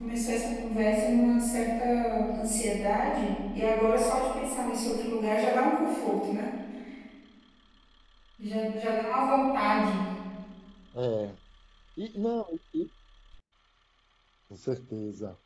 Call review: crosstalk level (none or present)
none